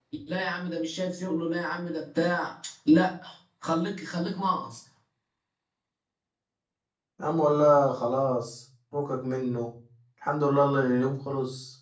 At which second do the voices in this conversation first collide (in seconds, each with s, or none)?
none